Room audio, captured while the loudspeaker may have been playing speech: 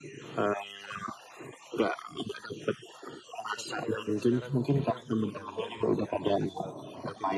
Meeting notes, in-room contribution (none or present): present